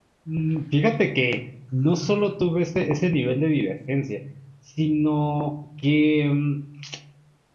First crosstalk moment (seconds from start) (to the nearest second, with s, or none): none